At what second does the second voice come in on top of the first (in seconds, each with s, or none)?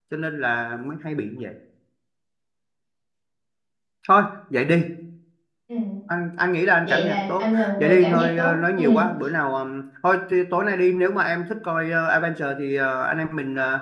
6.8 s